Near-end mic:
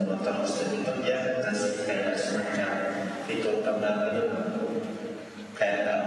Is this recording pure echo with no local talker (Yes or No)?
Yes